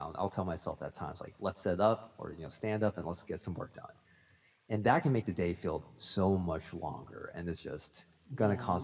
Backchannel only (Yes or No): Yes